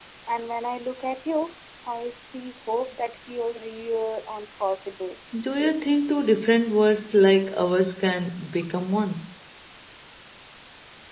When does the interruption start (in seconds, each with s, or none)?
none